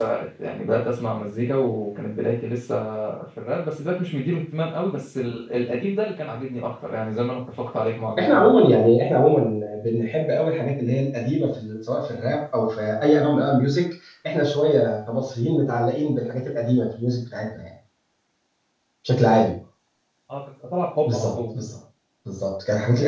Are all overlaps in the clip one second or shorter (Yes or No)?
Yes